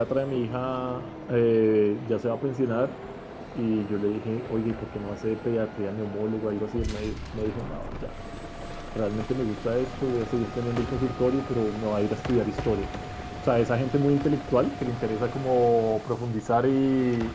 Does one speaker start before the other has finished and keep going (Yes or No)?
No